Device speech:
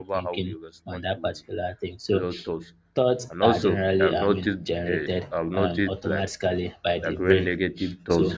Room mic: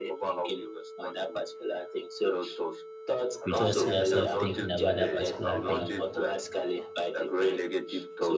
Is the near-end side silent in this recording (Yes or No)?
No